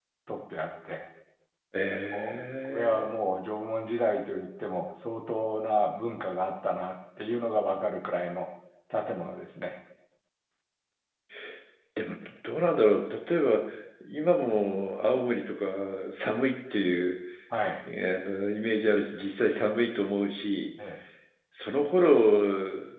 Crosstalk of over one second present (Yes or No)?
No